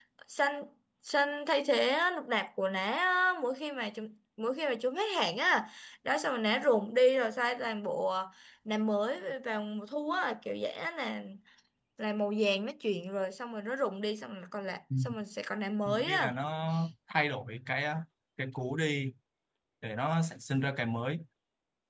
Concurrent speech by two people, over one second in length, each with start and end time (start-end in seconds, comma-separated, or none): none